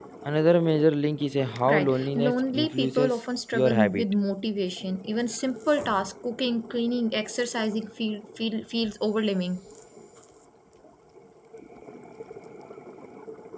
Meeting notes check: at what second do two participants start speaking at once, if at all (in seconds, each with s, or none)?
1.7 s